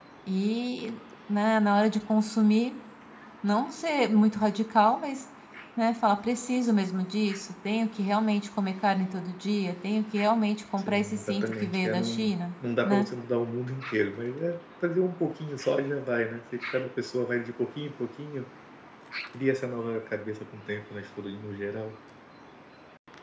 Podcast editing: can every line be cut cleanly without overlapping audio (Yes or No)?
No